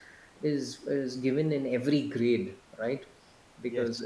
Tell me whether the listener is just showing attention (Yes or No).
Yes